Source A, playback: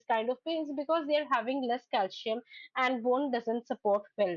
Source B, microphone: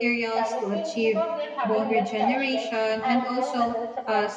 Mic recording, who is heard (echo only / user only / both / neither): both